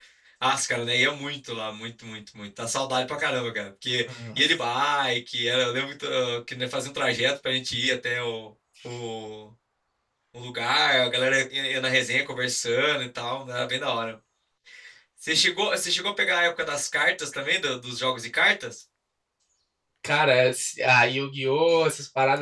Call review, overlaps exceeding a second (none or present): none